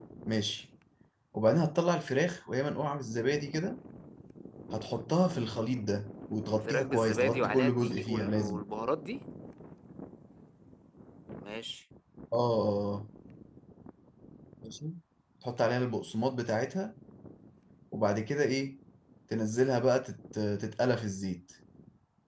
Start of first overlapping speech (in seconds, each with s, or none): 6.6 s